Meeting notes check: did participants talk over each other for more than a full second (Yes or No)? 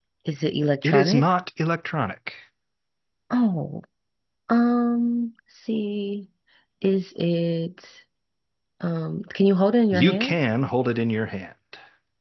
No